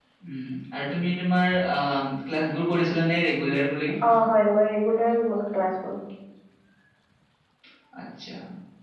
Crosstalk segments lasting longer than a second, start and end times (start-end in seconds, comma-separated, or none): none